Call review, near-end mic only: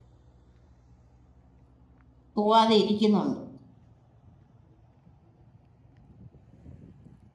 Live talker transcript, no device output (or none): പോവാതെ ഇരിക്കുന്നുണ്ട്